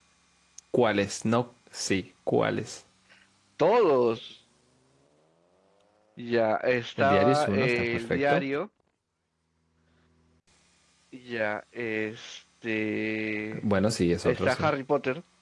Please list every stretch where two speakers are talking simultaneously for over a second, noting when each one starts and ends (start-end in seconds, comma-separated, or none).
7.0-8.4